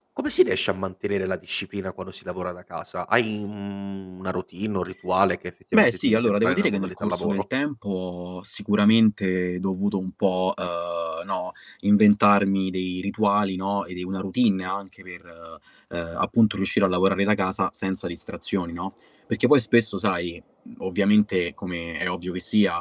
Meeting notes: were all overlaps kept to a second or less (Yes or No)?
No